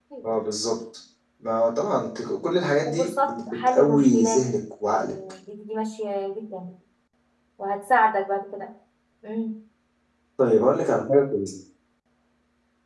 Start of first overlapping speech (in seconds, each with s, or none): 2.9 s